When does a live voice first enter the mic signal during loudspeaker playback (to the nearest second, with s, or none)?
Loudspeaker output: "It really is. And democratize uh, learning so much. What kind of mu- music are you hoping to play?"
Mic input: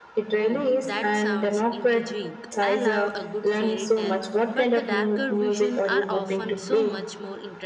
0 s